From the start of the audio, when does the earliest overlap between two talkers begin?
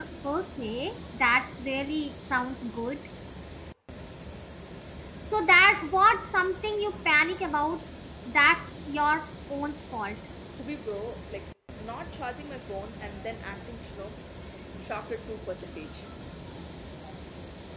none

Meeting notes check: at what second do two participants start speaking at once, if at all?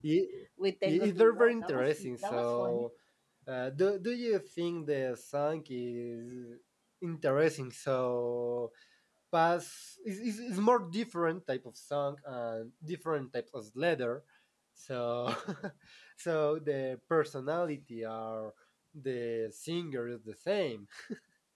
0.8 s

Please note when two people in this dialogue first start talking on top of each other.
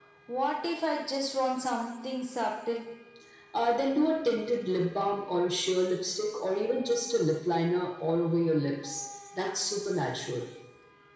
none

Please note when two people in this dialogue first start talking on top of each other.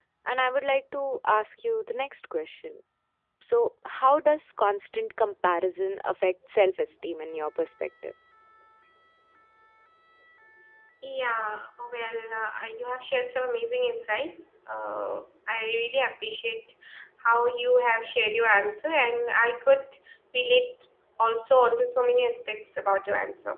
none

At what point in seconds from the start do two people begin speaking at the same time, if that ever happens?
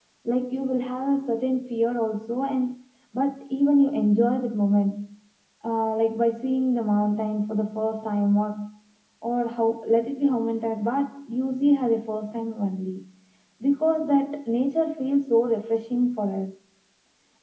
none

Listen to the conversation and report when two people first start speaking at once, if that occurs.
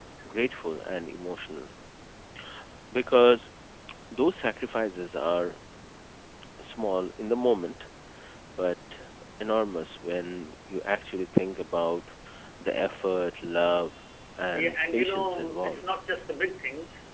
14.5 s

